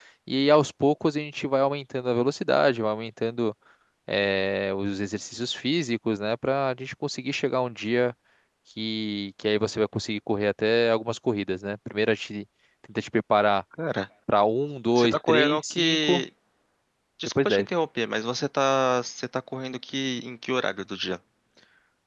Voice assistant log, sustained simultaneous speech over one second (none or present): present